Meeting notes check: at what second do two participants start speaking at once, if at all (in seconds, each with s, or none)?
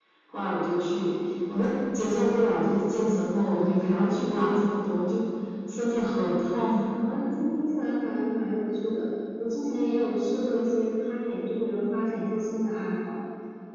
none